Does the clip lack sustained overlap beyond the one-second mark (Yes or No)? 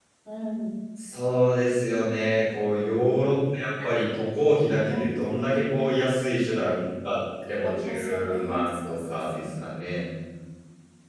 No